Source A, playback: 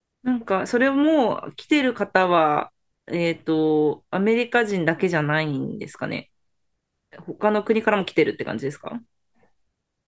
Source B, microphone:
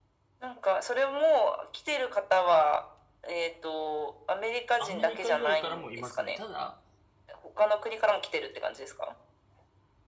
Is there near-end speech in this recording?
Yes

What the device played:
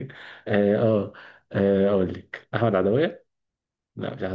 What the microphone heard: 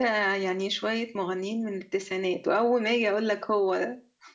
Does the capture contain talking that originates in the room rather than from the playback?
Yes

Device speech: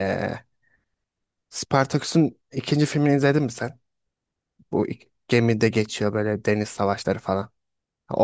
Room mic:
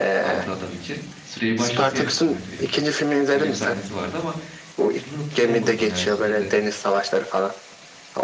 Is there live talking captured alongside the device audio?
Yes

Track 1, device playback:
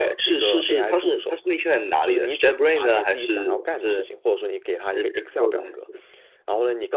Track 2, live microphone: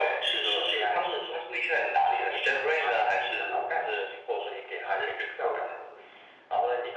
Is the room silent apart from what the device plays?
Yes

